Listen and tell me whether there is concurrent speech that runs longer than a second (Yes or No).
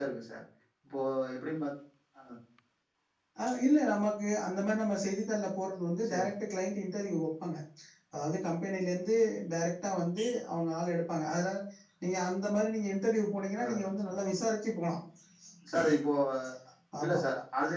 No